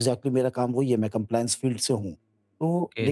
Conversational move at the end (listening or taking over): taking over